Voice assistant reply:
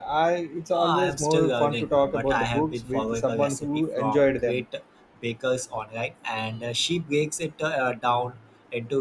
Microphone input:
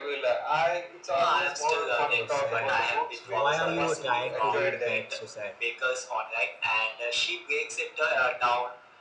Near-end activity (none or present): present